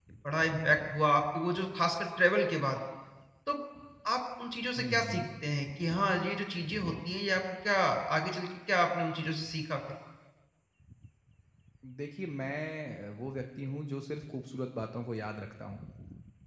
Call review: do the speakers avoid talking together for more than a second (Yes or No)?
Yes